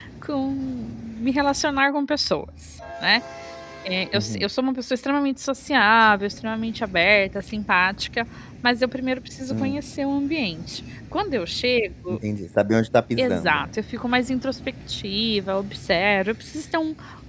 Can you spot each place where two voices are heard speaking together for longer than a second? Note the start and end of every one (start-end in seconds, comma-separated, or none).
none